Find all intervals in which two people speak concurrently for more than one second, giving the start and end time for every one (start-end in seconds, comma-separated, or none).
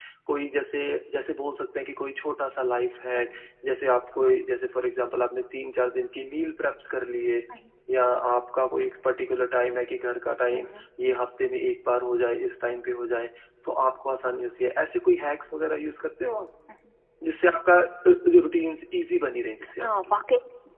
none